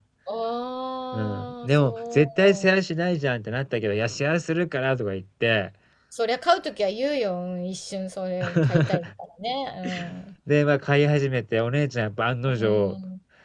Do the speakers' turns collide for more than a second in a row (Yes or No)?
Yes